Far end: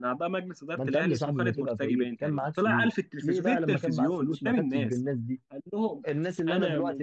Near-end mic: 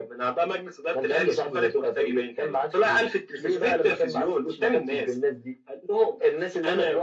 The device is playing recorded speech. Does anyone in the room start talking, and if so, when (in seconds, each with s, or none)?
none